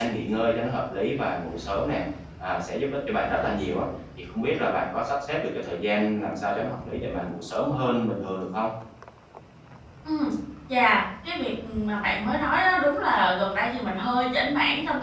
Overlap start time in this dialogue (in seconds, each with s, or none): none